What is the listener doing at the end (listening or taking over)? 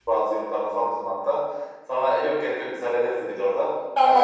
listening